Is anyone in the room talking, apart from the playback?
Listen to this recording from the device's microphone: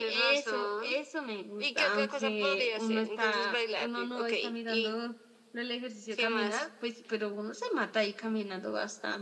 Yes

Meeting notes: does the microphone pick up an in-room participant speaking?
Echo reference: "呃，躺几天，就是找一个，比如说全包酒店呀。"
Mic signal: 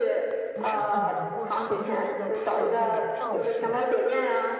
Yes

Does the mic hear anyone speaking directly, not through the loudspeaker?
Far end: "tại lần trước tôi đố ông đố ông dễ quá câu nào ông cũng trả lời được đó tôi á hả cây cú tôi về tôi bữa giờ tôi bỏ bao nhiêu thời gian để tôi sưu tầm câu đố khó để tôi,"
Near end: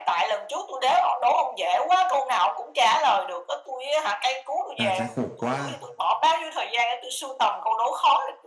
Yes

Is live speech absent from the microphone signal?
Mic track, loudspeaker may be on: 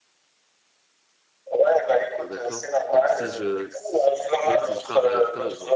No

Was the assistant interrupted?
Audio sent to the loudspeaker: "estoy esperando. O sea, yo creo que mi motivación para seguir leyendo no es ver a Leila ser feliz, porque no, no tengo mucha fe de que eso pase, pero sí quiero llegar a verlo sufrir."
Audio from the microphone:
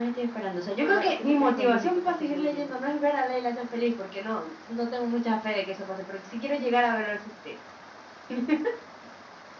Yes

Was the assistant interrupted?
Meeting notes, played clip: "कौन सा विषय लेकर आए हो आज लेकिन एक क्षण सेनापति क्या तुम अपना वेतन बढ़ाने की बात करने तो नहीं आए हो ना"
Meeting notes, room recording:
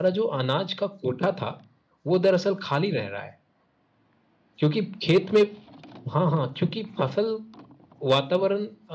Yes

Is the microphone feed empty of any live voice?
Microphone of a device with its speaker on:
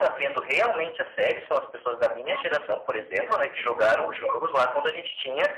No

